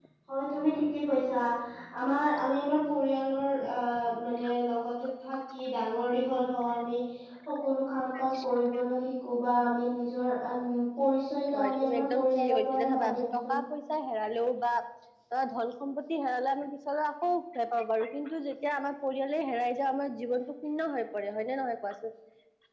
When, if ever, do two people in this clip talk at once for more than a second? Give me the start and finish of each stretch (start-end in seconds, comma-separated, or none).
11.7-13.6